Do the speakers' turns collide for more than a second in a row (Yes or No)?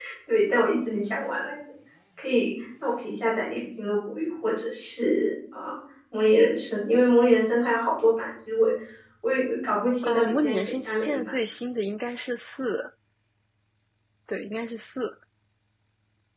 Yes